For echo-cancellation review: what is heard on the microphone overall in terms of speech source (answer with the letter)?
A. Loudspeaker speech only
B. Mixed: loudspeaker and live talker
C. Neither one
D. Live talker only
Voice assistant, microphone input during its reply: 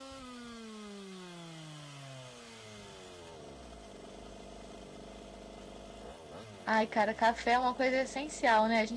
D